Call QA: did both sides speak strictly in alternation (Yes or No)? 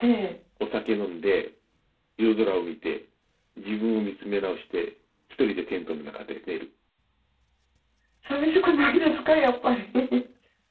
Yes